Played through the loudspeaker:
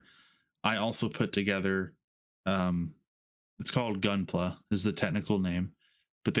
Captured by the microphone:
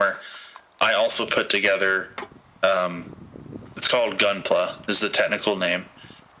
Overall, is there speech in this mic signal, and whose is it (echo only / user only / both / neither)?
echo only